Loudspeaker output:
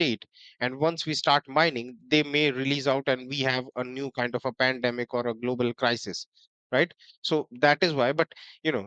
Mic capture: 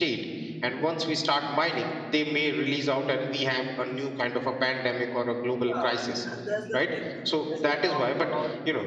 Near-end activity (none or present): present